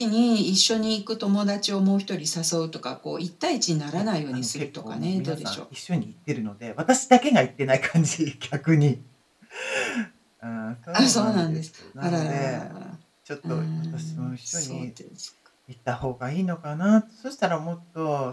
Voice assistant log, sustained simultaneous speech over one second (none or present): present